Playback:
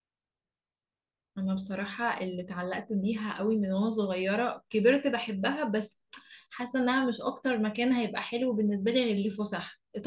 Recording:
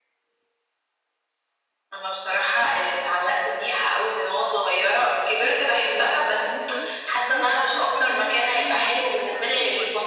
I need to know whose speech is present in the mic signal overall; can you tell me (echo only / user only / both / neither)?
both